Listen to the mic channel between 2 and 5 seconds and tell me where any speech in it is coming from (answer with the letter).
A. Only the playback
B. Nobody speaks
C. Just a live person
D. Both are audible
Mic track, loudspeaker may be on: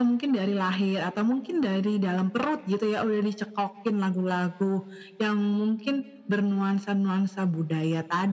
A